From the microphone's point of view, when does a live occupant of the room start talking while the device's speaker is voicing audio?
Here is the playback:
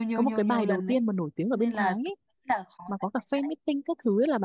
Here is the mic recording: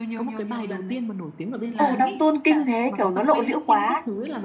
1.8 s

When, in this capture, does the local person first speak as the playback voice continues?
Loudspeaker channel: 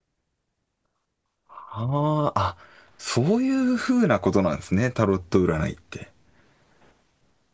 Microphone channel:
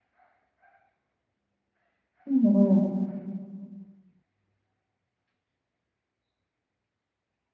2.3 s

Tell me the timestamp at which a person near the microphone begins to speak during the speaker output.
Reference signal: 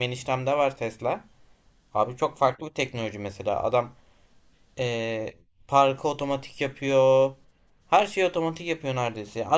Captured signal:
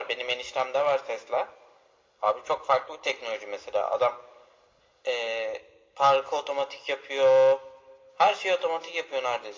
none

